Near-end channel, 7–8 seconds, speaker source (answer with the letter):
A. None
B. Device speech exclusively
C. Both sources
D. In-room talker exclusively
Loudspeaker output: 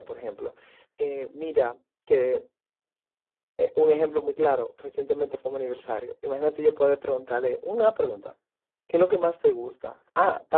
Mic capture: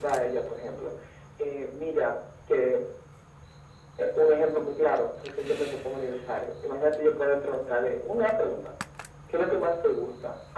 B